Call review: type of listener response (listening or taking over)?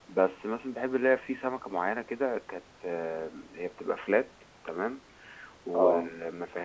listening